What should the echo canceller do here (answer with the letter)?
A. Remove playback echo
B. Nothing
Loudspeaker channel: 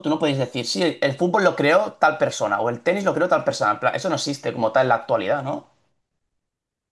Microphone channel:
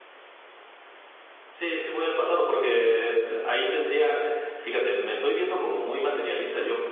B